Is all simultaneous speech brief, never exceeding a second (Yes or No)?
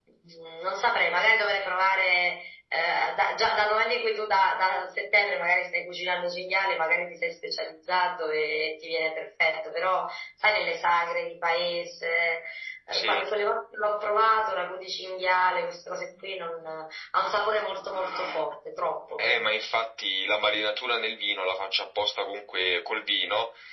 Yes